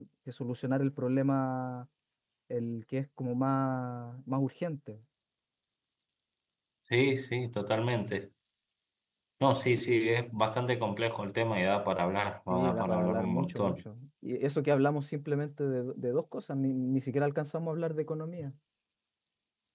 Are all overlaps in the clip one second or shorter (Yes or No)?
No